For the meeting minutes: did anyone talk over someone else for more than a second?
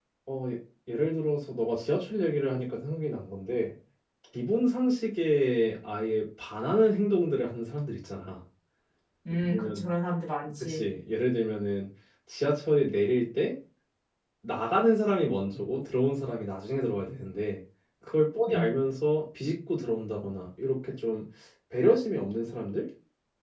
No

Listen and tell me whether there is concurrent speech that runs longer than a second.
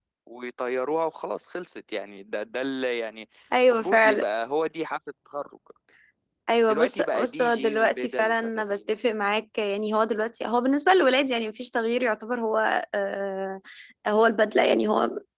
Yes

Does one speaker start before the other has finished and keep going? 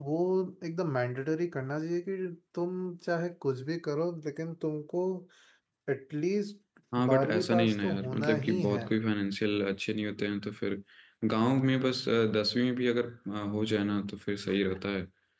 Yes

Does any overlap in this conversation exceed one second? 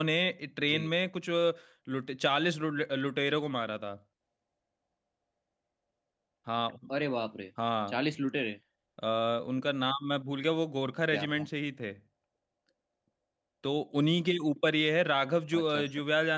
No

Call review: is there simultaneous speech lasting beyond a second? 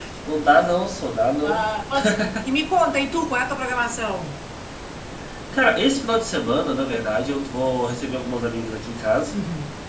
No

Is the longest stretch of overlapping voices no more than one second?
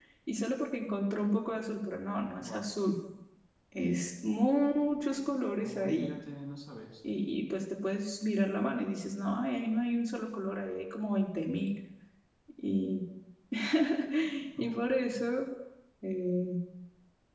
Yes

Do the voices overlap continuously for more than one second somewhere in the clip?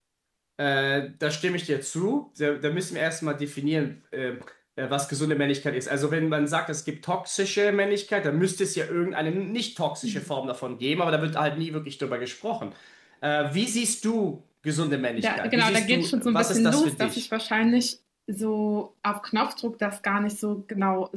Yes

